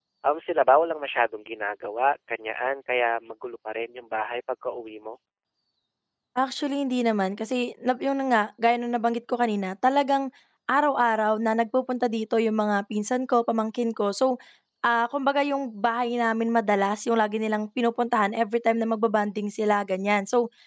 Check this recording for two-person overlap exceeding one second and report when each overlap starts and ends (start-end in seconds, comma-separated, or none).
none